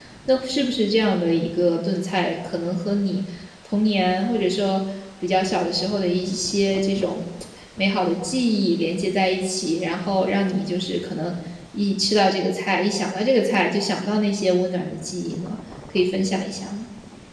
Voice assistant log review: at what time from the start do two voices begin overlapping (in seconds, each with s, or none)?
none